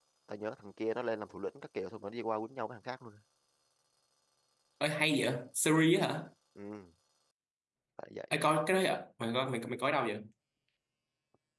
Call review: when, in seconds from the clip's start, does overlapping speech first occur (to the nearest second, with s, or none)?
none